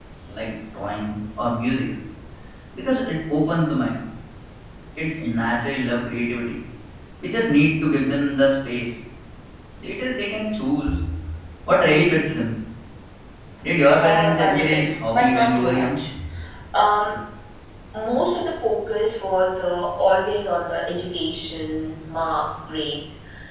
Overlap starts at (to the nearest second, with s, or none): 14 s